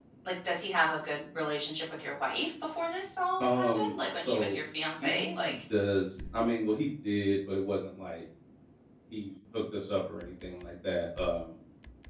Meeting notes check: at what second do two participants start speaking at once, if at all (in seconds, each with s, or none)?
3.4 s